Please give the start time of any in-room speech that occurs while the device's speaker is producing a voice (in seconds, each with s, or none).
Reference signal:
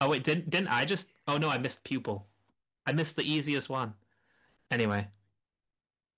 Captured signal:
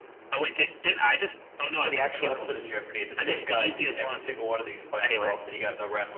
1.8 s